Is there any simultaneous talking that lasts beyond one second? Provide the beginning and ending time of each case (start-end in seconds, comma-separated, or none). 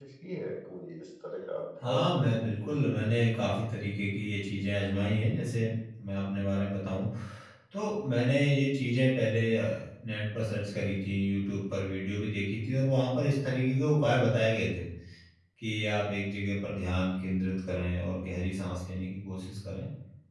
1.8-3.1